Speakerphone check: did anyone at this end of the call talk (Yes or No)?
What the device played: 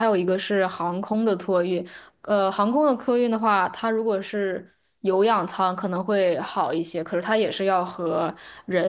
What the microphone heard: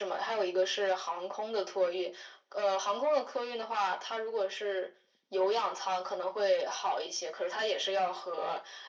No